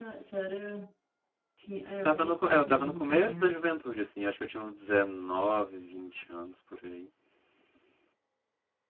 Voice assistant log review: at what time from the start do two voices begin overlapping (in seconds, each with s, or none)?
2.0 s